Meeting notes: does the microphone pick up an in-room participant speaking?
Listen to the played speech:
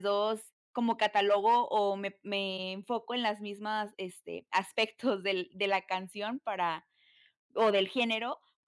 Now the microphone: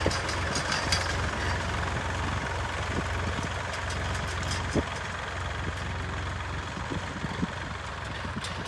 No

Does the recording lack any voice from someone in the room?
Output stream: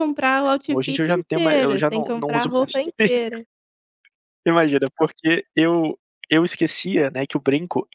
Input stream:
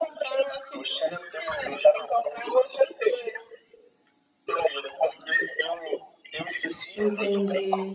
No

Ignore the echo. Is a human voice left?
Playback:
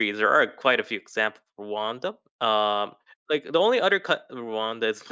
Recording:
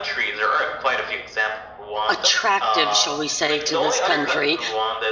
Yes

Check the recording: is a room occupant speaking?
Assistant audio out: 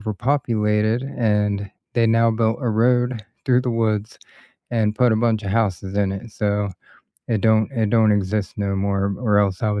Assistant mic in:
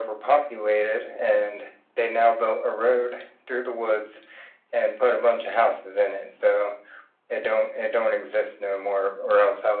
No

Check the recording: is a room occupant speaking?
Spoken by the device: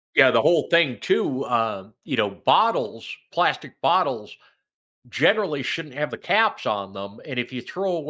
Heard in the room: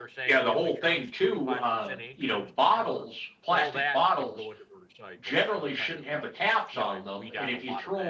Yes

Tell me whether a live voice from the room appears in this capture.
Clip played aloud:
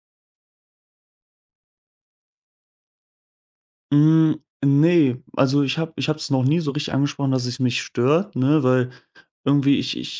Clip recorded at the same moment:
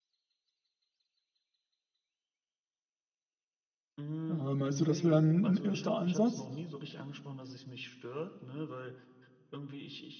Yes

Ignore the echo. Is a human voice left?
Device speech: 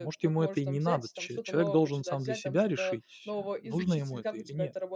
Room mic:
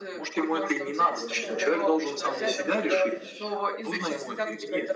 Yes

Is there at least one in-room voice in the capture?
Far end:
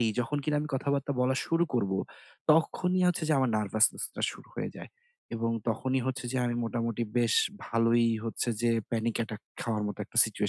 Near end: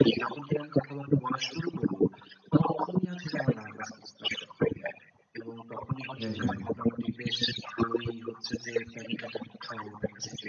Yes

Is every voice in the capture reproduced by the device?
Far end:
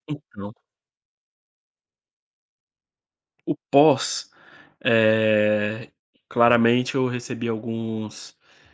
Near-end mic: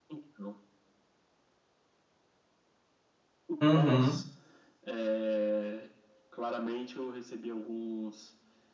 No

